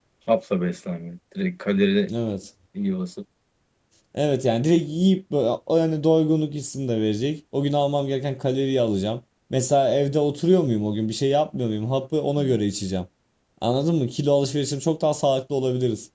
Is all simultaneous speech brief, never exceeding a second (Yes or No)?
Yes